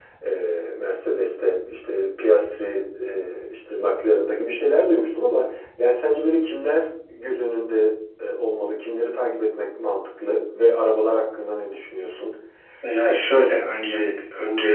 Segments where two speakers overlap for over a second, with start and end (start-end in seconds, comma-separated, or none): none